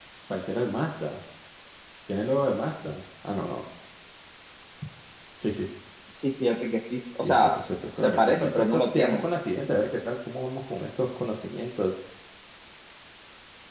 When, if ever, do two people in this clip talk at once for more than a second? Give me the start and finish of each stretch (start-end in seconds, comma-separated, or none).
8.0-9.2